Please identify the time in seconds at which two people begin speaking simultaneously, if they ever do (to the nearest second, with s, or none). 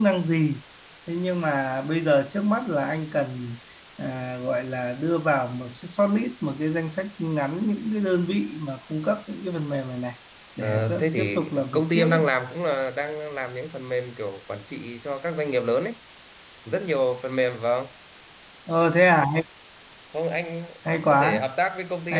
11 s